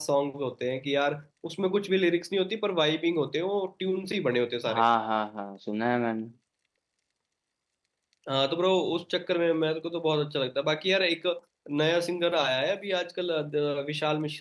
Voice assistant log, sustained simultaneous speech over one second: none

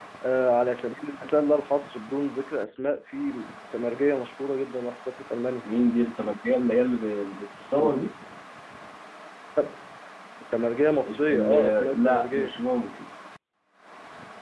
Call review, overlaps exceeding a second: present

